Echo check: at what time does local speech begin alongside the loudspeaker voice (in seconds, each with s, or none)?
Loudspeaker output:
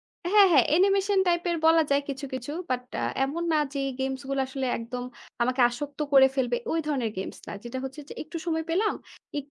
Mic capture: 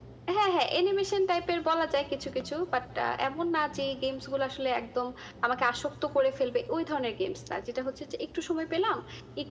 none